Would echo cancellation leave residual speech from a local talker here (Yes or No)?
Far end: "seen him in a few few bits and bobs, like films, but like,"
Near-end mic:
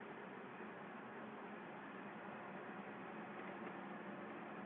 No